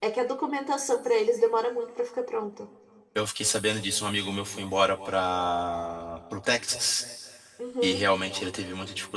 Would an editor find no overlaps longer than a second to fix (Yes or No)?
Yes